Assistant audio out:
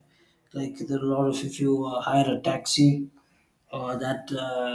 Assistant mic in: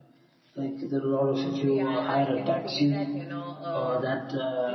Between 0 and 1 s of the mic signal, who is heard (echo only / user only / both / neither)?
echo only